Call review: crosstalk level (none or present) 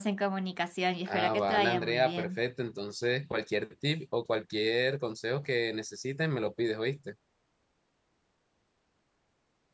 present